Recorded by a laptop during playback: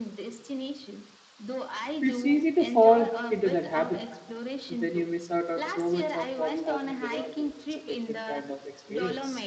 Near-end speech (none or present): present